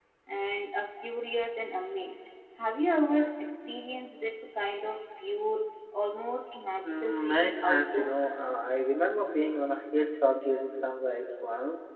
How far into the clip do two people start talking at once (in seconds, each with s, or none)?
6.8 s